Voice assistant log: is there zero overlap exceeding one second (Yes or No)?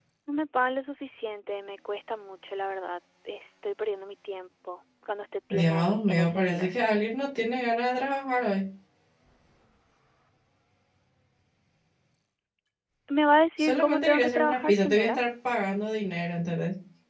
No